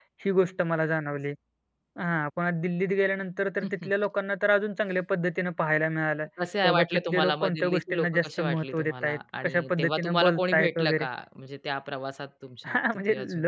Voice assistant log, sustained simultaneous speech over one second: present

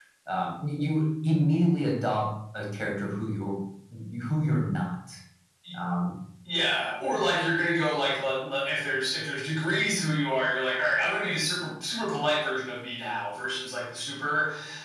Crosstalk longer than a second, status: none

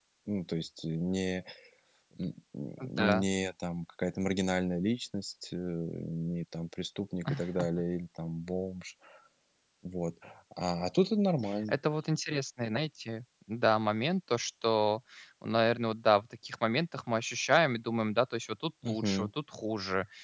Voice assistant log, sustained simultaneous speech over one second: none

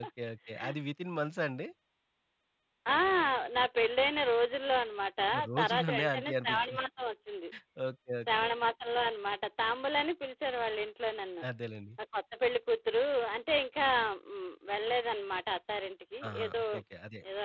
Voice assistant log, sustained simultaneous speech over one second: present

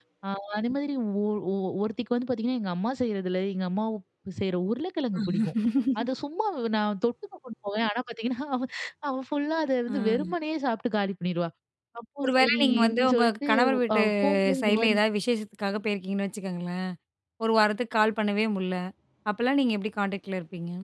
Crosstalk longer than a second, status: present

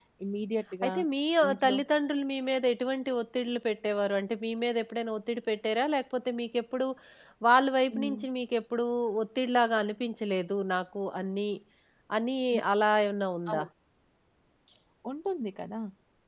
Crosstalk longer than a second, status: none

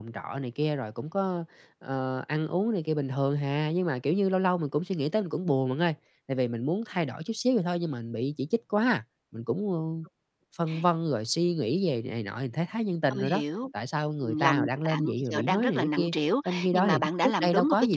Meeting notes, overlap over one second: present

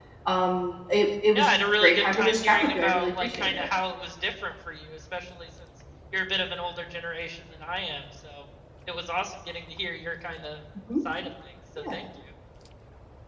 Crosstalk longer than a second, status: present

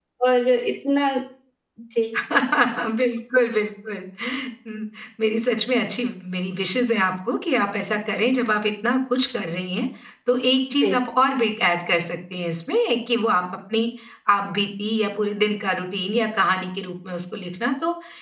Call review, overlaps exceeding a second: none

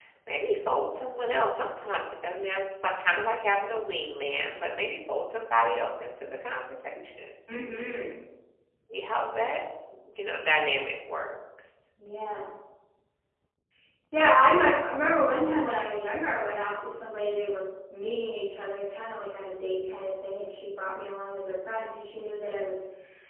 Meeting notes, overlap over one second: none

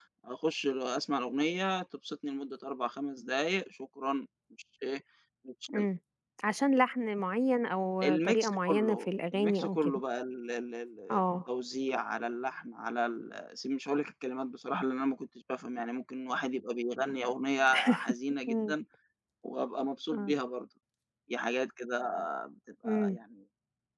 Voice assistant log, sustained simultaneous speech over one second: present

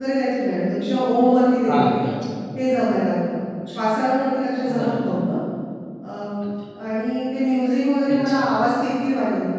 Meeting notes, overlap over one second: none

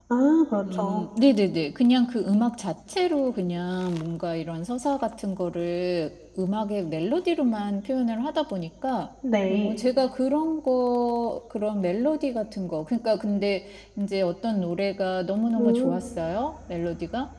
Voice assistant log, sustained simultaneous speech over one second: none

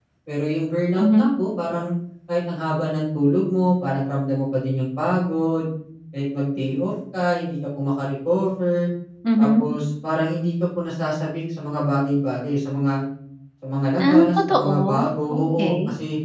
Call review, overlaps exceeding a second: present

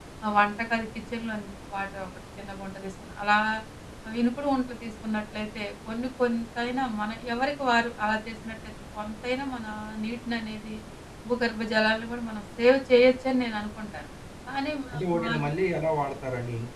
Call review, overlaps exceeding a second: none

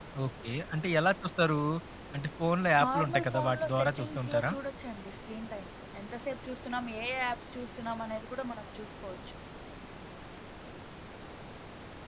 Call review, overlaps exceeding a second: present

